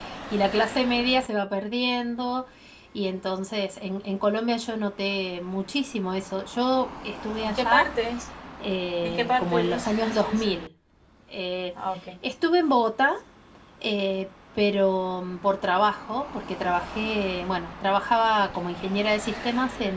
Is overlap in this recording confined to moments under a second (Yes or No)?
No